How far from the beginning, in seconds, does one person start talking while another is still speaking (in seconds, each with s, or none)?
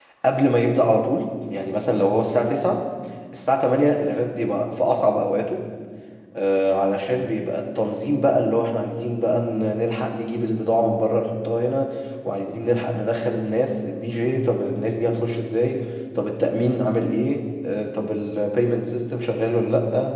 none